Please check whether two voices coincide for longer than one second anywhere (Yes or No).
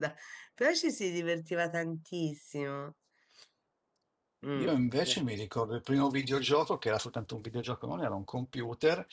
No